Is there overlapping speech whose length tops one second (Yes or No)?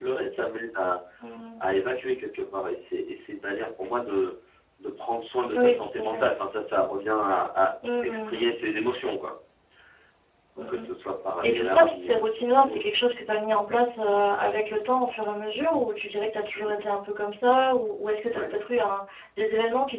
Yes